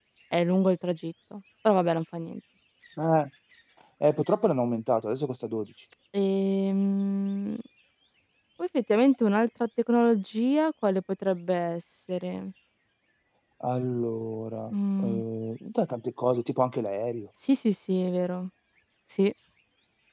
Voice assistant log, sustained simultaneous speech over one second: none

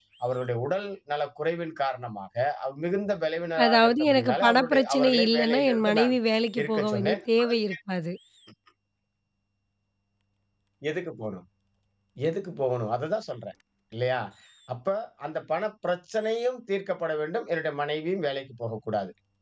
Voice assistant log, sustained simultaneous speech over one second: present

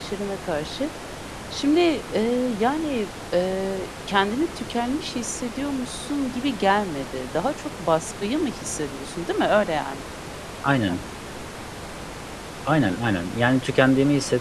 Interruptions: none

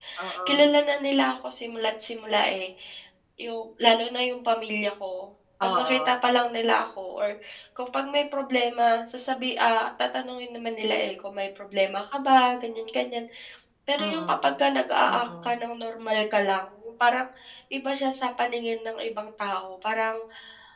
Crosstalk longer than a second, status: none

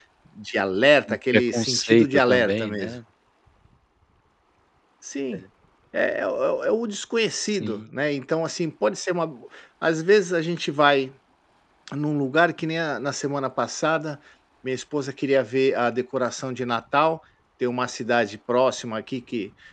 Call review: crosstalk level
present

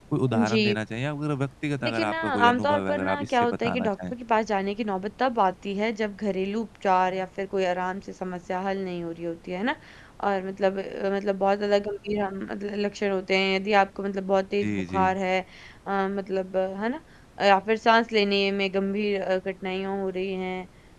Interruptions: present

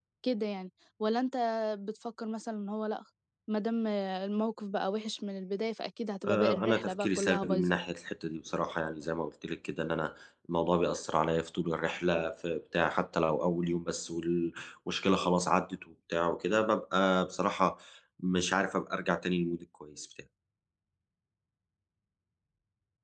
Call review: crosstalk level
present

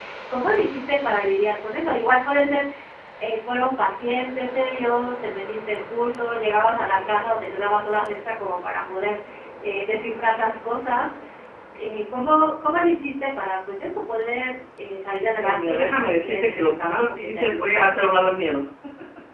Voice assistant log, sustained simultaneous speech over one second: present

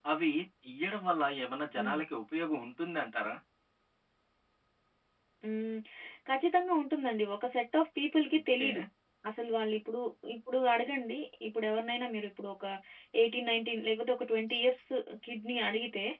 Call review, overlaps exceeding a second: none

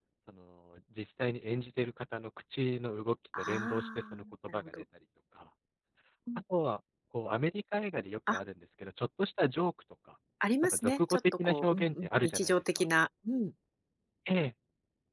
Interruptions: present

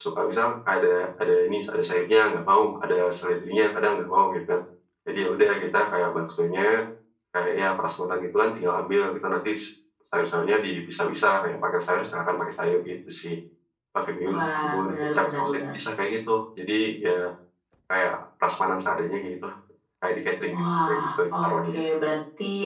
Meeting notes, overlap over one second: present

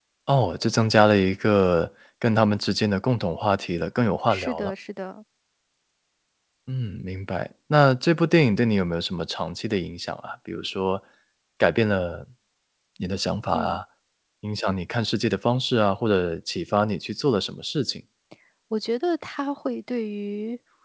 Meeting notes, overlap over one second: none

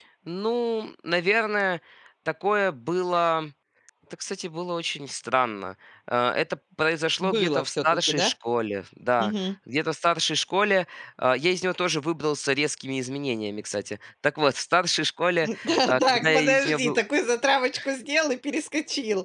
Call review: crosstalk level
present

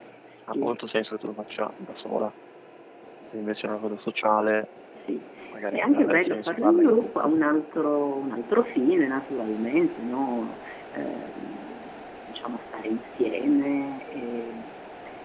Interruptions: present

